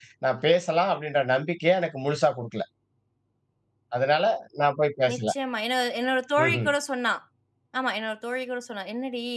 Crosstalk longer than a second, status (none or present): none